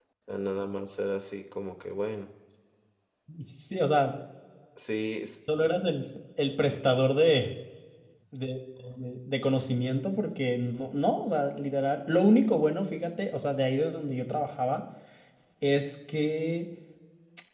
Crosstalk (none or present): none